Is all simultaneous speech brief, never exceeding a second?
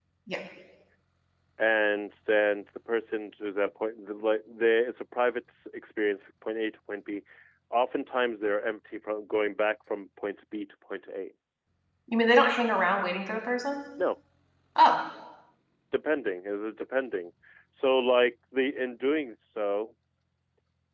Yes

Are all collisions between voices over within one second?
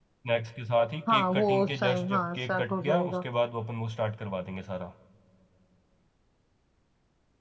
No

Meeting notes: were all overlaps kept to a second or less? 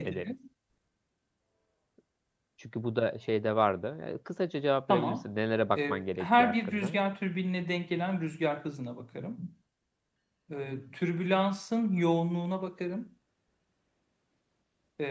No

